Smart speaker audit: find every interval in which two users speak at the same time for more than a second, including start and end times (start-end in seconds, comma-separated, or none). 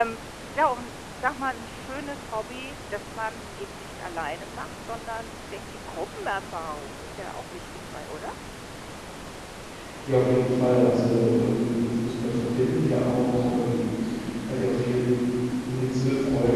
none